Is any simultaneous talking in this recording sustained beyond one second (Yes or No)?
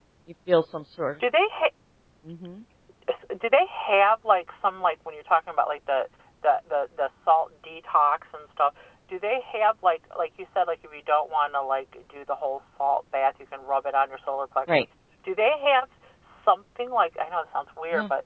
No